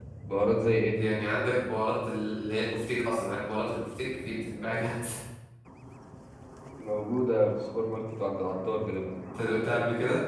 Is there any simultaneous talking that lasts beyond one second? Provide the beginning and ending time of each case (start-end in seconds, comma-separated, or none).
none